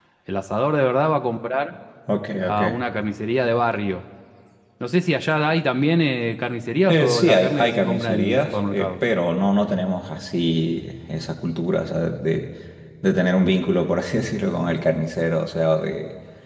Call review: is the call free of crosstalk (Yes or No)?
No